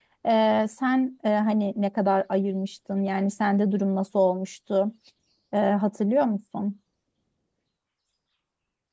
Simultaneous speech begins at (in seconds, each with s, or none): none